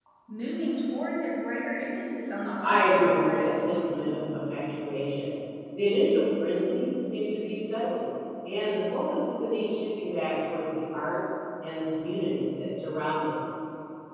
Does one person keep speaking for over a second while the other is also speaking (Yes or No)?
Yes